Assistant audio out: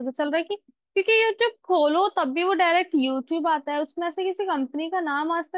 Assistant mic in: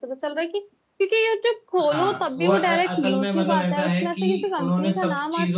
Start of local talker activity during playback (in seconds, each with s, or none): 1.8 s